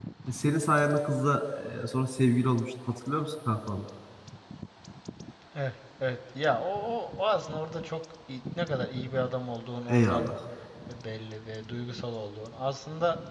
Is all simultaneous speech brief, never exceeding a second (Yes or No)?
Yes